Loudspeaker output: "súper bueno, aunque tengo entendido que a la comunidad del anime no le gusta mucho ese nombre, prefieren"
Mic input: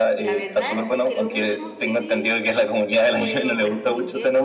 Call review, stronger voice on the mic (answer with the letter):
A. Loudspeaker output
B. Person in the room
A